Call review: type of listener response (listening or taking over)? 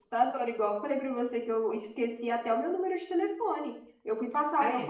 listening